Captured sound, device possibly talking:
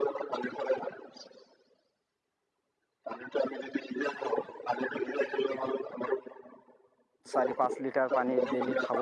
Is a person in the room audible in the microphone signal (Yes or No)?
Yes